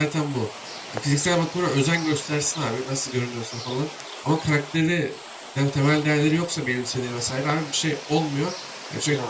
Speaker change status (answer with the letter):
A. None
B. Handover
A